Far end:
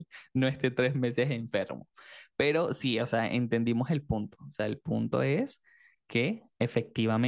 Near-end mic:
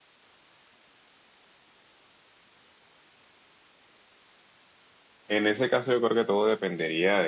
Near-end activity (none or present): present